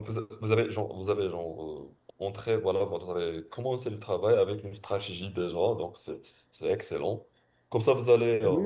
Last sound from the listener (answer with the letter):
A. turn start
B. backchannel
B